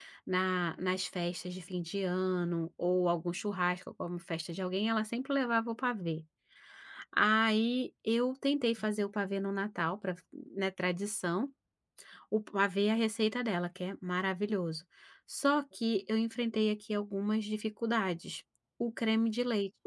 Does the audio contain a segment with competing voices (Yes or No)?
No